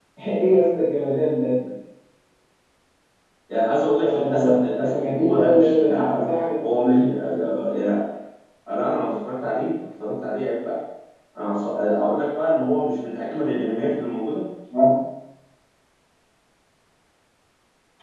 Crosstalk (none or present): present